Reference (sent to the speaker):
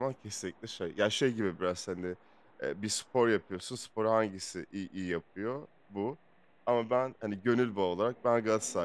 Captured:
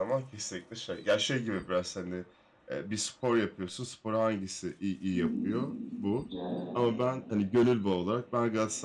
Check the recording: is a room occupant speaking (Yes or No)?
Yes